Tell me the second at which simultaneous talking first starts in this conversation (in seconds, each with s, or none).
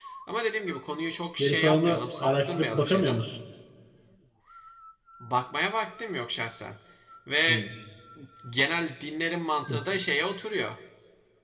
1.4 s